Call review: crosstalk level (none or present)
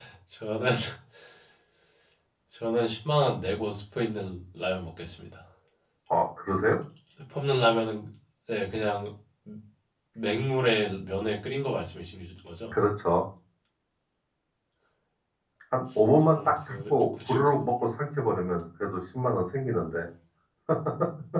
present